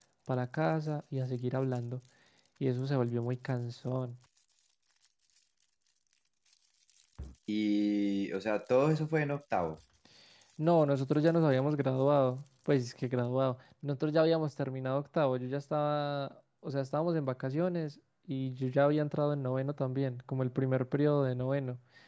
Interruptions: none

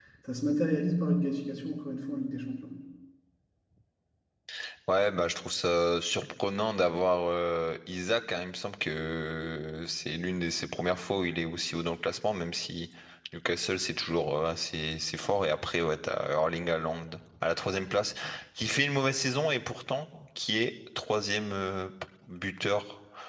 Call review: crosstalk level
none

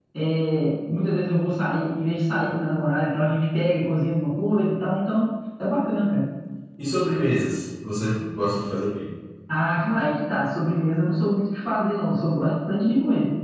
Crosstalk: none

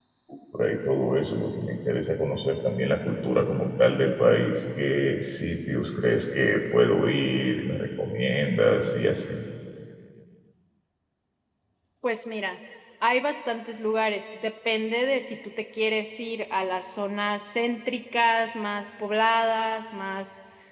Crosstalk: none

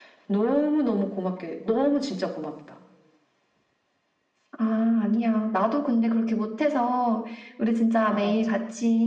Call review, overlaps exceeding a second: none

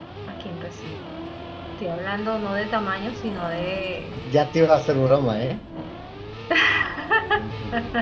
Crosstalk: none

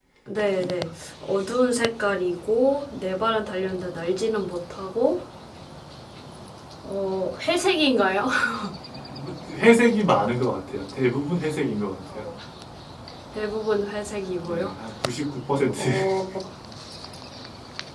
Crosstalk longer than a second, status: none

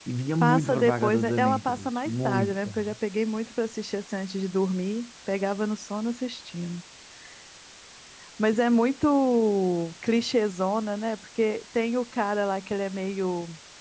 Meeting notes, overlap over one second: present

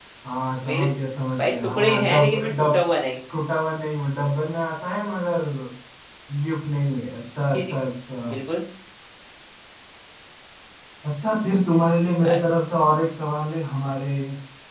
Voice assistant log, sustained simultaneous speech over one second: present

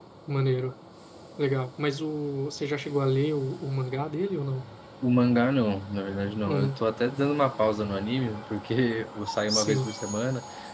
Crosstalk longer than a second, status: none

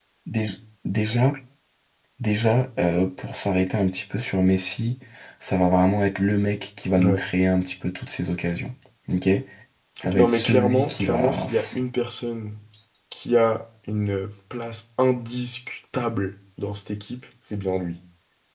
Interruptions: present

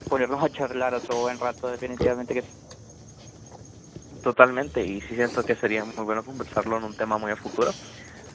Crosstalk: none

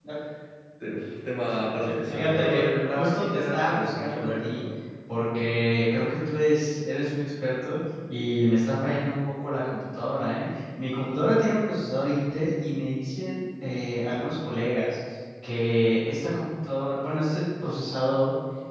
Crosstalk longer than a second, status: present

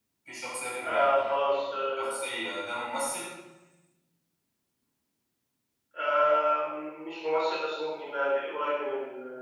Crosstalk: present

